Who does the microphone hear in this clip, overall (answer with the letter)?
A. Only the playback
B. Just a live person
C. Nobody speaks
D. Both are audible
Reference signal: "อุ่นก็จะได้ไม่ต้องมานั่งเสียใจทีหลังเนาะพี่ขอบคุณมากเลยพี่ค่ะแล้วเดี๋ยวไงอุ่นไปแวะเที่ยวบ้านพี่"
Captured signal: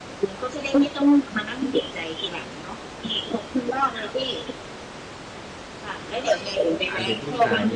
D